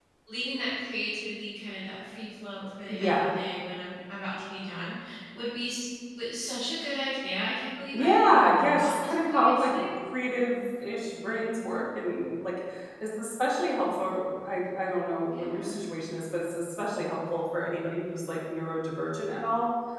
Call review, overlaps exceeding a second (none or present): present